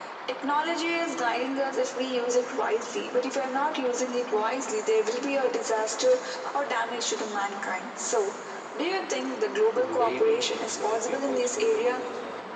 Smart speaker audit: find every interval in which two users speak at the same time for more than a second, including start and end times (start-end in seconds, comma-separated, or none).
9.7-12.0